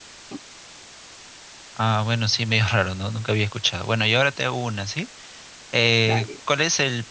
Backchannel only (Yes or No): Yes